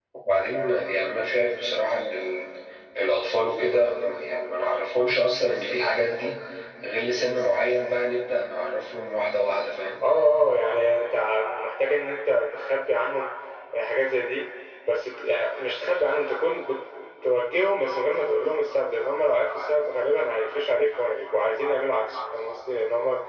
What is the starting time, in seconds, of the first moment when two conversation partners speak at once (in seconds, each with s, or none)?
none